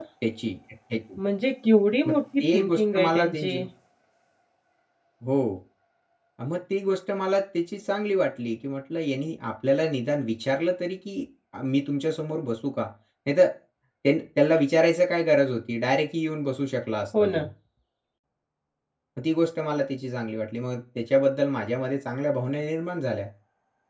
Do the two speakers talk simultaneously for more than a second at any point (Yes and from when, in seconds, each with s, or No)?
Yes, from 2.1 s